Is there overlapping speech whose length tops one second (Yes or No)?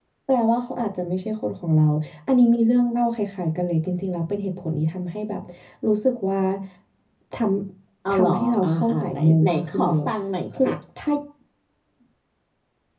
Yes